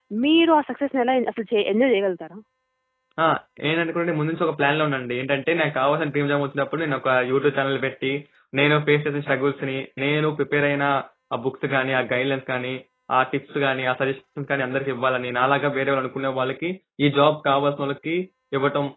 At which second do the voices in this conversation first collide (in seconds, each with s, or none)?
none